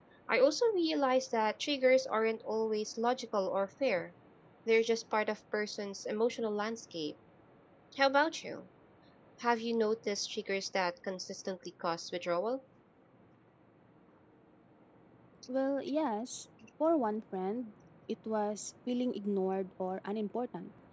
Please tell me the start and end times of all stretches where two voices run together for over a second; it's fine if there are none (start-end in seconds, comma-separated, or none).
none